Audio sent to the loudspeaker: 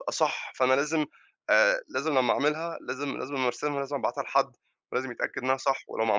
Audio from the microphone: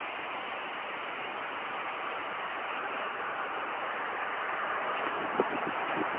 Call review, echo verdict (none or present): none